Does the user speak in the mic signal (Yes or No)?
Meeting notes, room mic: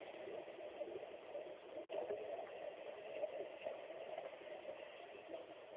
No